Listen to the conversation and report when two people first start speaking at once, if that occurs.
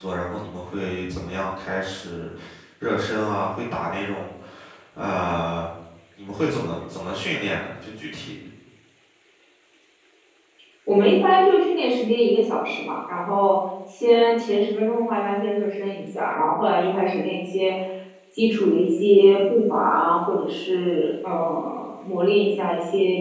none

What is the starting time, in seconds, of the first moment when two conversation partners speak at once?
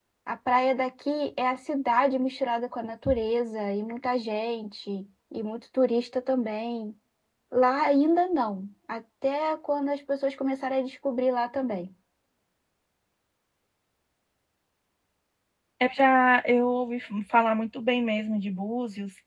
none

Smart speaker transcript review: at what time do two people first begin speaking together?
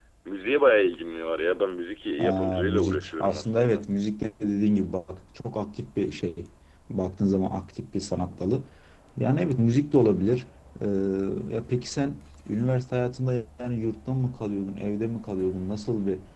2.2 s

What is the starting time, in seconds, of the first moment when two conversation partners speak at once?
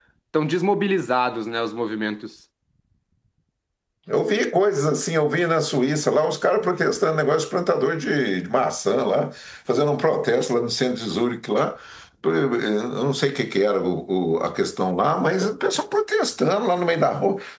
none

